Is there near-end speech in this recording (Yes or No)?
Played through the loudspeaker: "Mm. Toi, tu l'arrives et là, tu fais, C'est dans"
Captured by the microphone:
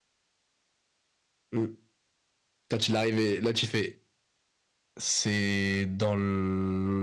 No